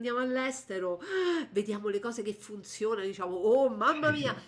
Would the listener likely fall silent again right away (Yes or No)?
Yes